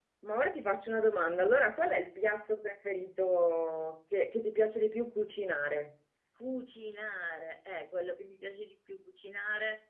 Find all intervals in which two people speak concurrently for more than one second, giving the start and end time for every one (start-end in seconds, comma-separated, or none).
none